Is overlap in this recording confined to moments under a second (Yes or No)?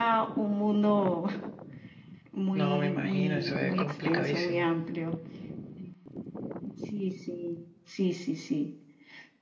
No